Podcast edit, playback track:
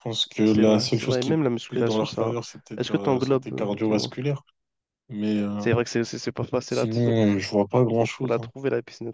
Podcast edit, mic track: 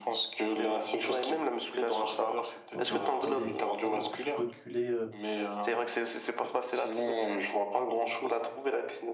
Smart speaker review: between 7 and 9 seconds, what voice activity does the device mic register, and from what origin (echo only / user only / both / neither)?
echo only